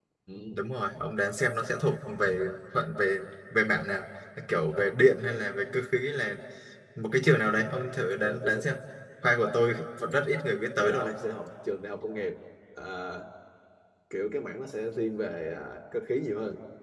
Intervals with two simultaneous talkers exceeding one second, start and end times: none

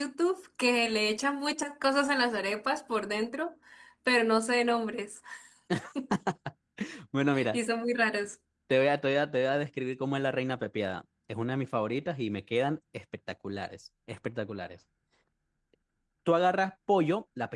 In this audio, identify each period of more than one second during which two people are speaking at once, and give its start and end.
none

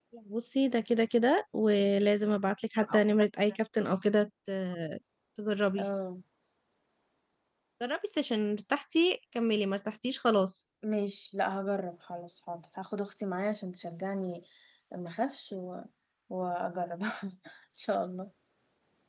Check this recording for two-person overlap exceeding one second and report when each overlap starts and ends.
none

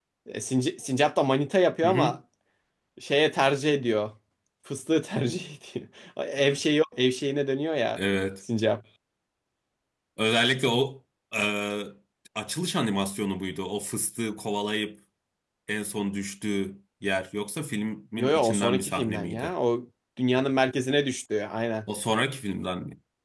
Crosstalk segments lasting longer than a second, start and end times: 18.2-19.5

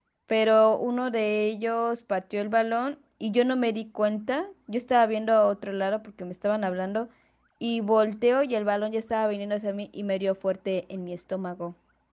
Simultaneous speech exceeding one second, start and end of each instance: none

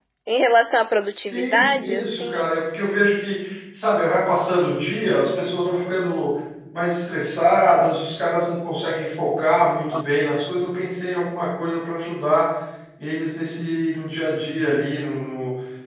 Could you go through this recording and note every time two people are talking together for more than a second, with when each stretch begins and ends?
1.0-2.5

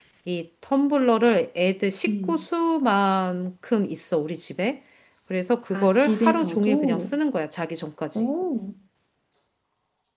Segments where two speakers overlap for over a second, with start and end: 5.7-7.2

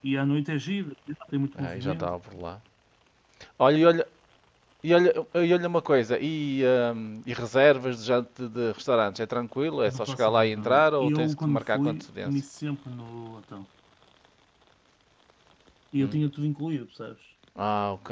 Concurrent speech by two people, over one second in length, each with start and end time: 9.8-12.3

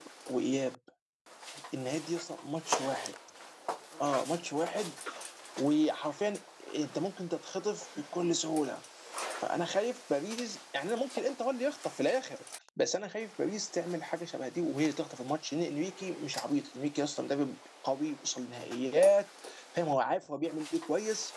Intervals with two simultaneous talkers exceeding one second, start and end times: none

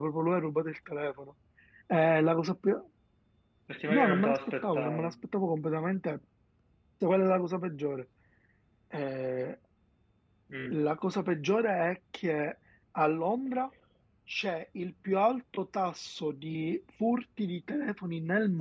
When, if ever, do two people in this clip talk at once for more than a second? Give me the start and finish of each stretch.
3.9-5.1

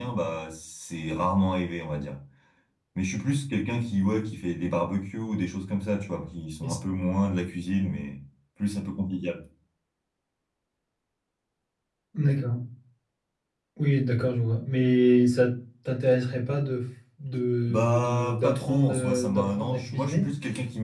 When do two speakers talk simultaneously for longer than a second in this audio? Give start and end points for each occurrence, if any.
17.7-20.3

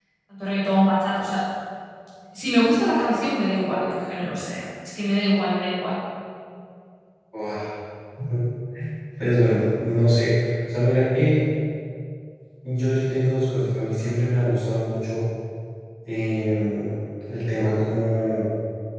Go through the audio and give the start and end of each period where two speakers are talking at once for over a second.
none

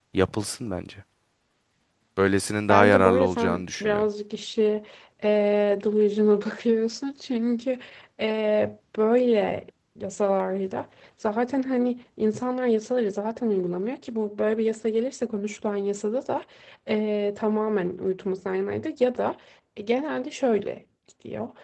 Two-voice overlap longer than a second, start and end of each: 2.7-4.0

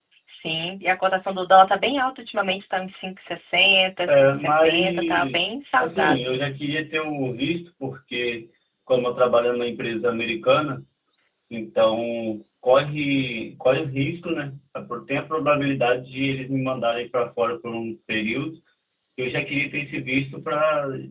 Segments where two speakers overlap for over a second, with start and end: 4.1-6.4

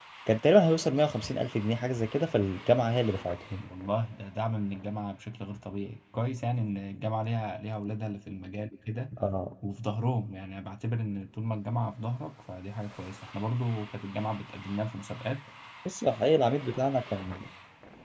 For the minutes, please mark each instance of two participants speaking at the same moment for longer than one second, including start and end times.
none

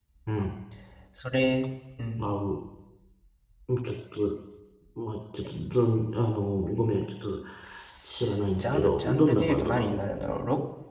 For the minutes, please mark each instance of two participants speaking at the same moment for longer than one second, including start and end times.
8.6-10.0

